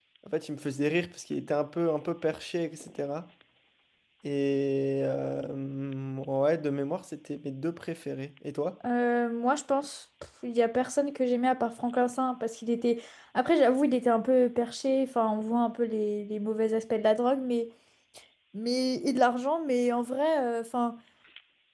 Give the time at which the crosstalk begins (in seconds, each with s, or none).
none